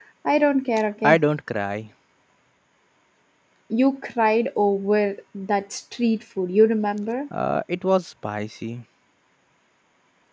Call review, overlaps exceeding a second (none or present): none